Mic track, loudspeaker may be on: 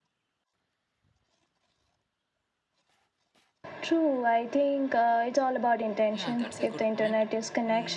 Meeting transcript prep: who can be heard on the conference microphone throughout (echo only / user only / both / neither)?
both